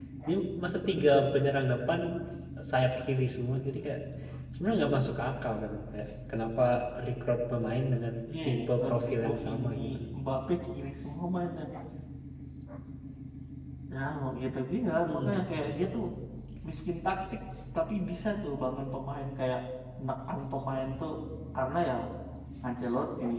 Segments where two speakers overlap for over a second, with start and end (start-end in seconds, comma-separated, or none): 8.4-9.8